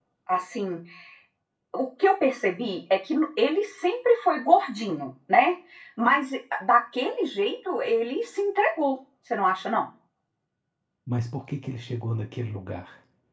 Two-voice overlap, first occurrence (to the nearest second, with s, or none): none